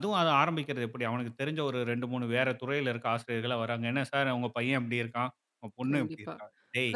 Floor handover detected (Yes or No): Yes